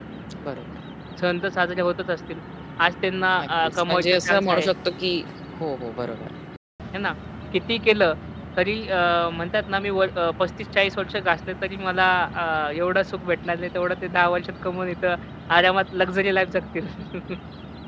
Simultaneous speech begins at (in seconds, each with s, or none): 3.4 s